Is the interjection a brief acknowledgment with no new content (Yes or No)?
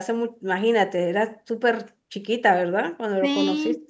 No